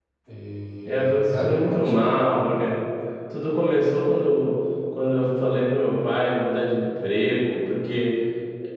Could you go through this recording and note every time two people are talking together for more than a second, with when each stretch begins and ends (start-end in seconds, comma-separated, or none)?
0.8-2.1